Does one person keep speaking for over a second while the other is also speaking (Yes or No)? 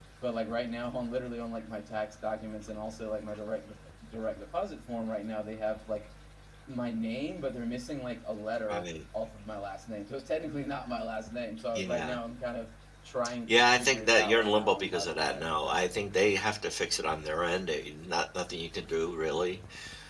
Yes